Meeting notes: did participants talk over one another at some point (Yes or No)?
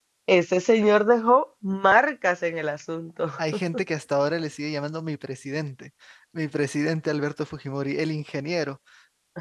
No